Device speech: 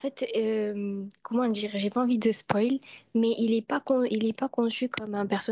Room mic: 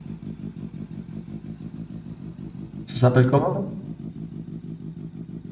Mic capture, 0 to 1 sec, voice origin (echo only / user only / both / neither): neither